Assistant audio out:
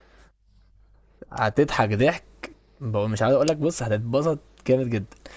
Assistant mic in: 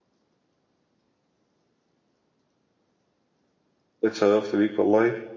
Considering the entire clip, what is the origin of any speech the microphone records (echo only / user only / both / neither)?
user only